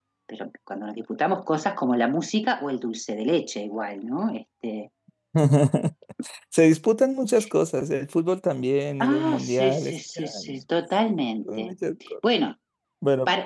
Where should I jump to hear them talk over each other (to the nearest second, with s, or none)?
9 s